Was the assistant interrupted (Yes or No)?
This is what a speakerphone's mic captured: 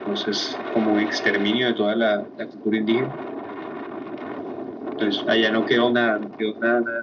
No